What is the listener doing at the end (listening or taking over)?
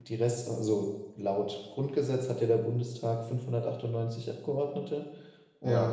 listening